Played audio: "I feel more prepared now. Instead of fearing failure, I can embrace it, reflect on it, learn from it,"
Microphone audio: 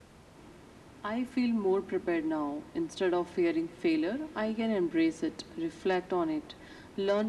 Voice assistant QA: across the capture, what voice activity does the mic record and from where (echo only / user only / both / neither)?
echo only